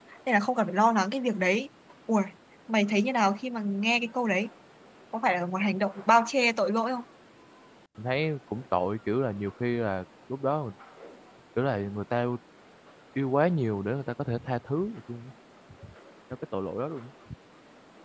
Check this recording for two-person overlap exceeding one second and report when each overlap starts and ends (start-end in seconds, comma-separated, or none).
none